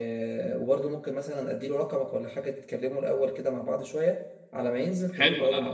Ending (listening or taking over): taking over